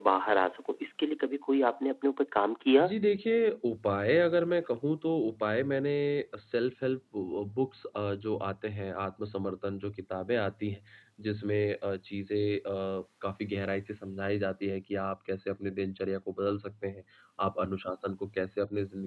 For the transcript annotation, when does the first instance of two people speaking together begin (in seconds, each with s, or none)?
none